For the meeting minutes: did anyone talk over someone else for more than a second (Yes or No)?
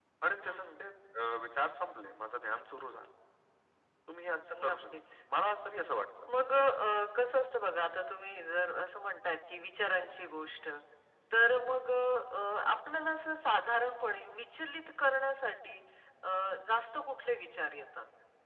No